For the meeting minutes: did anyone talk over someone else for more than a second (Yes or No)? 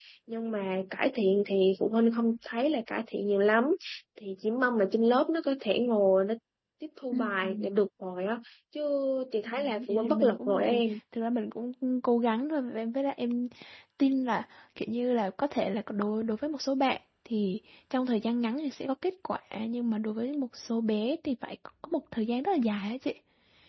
Yes